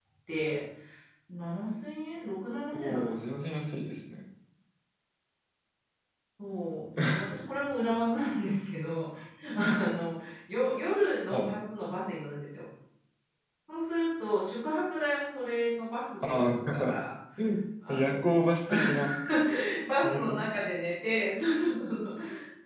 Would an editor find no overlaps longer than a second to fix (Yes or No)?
No